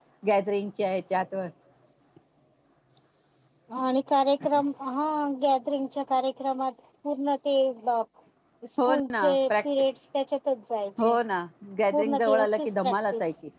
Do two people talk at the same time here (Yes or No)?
Yes